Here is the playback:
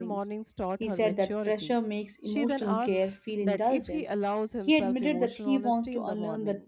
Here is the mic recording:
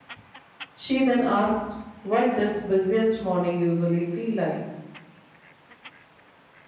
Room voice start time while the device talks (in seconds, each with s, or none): 0.8 s